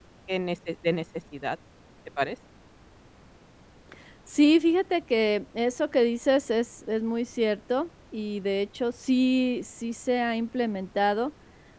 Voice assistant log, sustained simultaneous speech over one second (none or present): none